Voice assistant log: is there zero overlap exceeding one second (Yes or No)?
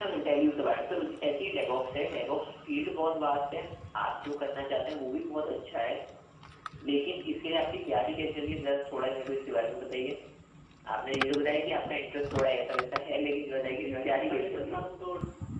No